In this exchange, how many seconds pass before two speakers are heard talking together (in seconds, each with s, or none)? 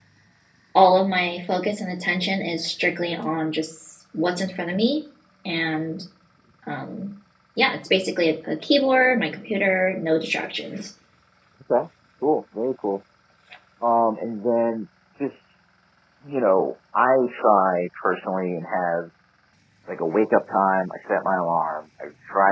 none